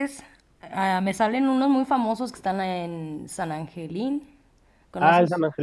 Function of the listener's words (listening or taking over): taking over